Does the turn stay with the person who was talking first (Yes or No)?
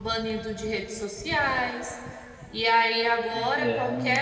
Yes